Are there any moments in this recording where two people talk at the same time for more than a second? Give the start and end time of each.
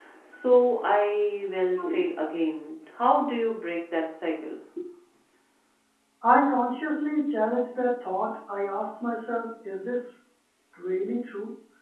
none

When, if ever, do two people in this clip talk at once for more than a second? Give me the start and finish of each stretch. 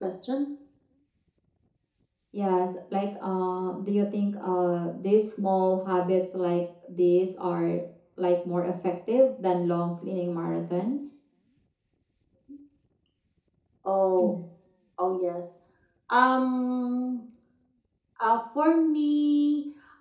none

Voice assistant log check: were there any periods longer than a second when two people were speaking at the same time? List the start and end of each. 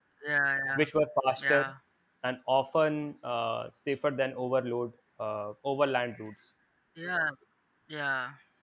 none

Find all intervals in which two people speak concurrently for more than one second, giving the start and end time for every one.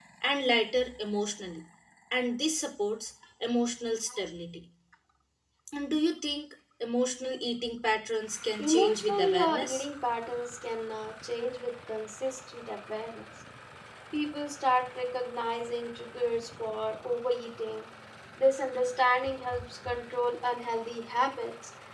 8.6-9.8

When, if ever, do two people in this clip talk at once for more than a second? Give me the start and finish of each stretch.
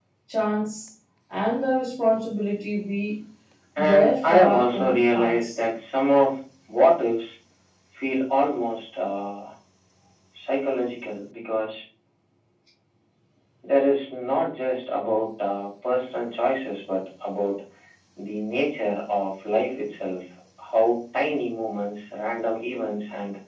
3.8-5.6

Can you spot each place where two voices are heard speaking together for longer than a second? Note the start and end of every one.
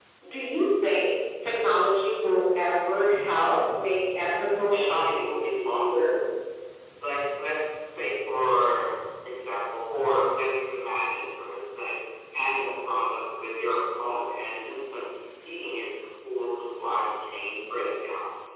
4.7-6.1

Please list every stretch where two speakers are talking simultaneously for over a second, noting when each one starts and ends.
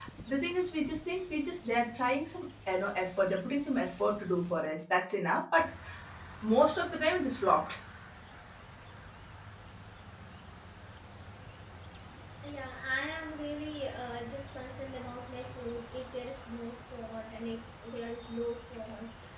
none

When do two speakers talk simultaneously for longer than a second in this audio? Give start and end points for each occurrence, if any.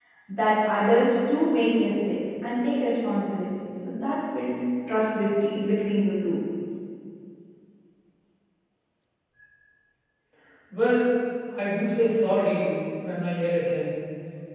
none

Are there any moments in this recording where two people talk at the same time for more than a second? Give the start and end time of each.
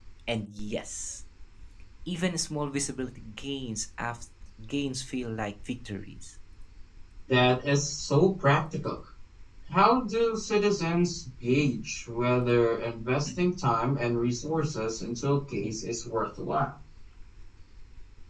none

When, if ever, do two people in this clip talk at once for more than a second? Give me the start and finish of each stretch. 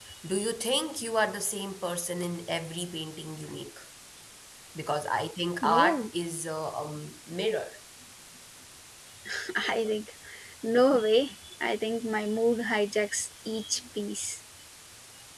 none

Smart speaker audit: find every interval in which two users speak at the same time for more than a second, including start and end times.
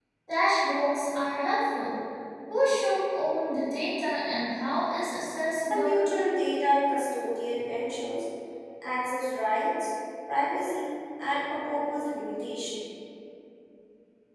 none

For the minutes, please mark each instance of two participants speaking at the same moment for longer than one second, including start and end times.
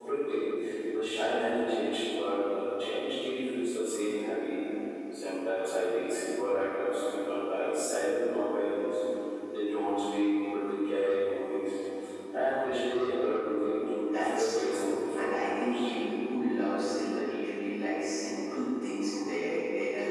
14.1-15.9

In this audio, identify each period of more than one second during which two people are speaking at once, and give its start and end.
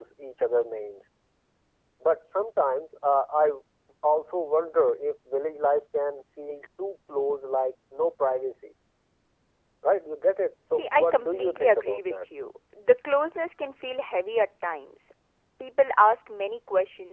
10.7-12.2

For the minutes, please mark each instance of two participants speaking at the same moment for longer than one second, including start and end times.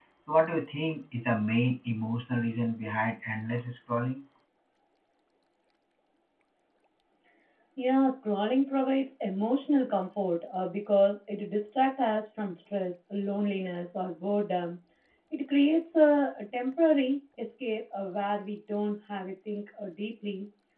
none

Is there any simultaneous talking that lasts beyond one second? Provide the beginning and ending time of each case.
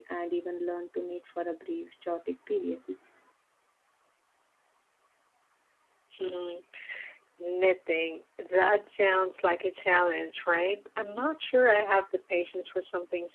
none

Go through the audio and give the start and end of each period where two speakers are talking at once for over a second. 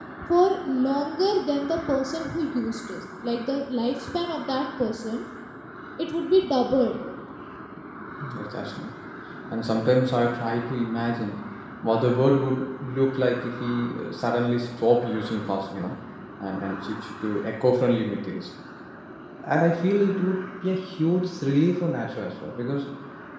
none

